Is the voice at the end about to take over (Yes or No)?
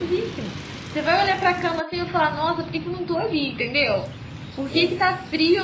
No